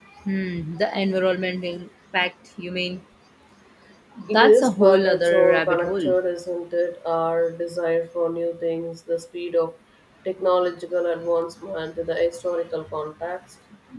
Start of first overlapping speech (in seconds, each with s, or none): 4.3 s